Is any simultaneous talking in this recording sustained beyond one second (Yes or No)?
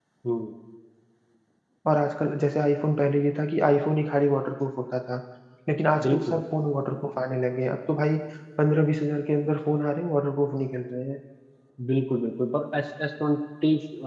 No